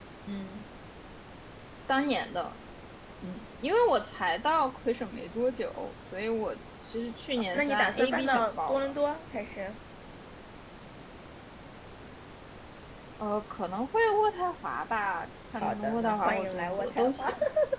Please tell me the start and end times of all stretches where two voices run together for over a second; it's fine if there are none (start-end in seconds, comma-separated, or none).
7.5-8.9, 15.6-17.3